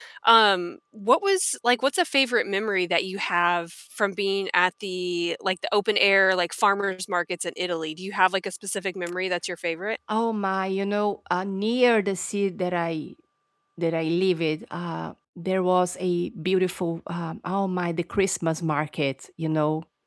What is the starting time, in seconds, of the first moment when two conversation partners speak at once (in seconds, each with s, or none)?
none